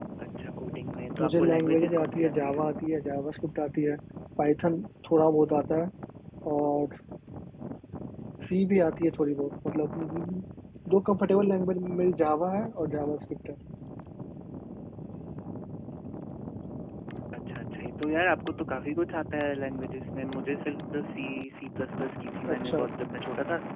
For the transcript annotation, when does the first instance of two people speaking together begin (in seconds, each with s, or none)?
1.2 s